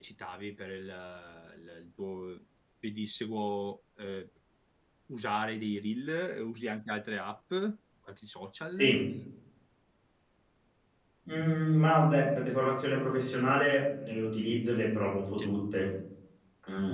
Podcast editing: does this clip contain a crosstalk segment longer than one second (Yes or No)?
No